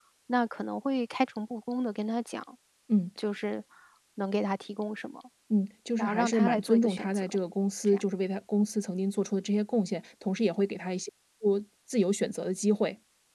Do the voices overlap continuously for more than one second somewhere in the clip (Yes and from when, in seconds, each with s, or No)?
Yes, from 6.0 s